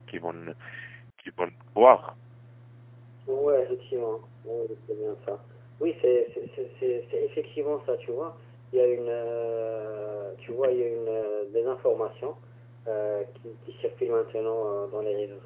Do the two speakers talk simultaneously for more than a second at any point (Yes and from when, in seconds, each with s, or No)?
No